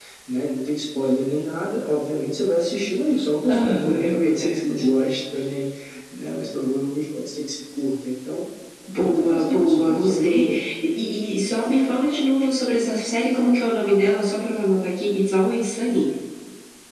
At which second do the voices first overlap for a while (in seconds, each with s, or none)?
3.5 s